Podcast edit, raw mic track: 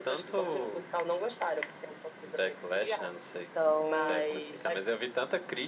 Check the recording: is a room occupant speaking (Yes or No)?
Yes